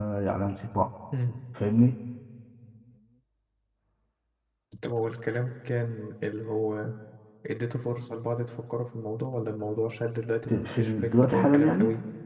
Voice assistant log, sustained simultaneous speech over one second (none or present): present